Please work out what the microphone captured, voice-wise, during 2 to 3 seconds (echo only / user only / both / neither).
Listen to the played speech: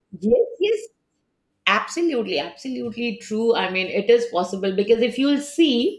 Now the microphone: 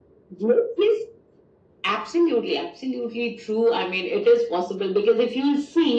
echo only